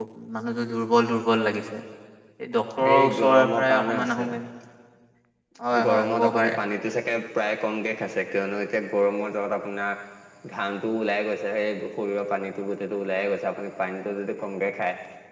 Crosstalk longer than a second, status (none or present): present